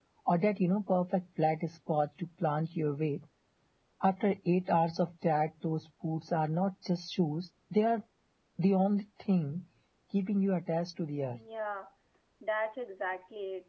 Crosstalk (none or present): none